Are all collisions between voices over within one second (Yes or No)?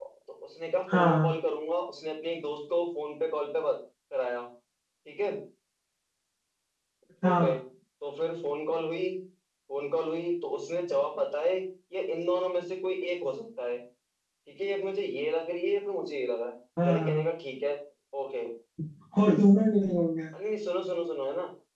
Yes